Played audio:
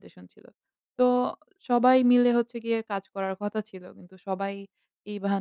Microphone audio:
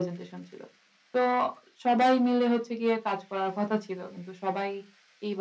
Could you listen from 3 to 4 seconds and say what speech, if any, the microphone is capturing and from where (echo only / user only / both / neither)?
echo only